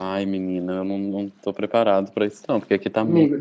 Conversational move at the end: taking over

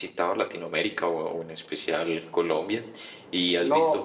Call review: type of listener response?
listening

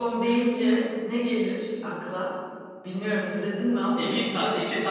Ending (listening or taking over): taking over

